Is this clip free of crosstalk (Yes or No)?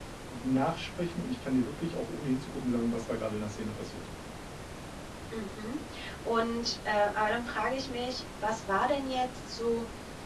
Yes